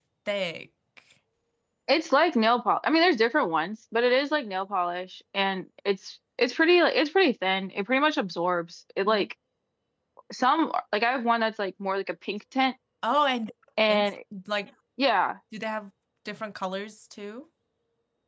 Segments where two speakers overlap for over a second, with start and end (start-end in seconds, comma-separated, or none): none